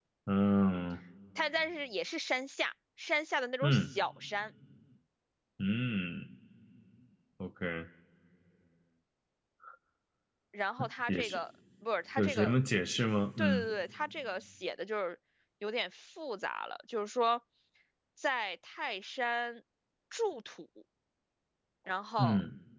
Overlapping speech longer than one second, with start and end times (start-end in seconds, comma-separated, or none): none